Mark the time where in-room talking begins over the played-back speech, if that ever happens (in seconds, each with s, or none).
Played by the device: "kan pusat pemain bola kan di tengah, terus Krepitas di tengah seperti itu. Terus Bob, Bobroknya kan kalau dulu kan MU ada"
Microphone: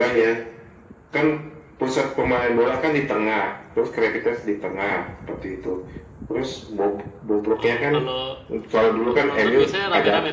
7.5 s